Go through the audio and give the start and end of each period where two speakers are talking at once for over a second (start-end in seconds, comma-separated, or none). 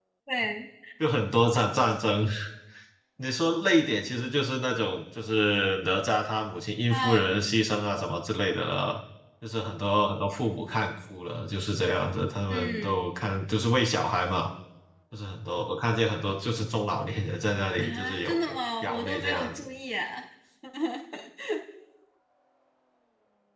17.8-19.7